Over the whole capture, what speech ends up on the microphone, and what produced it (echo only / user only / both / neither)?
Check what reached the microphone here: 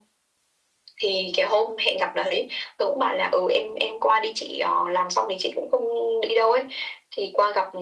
echo only